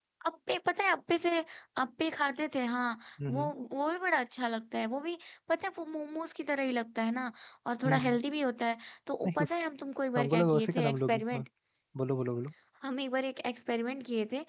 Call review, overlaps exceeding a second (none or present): present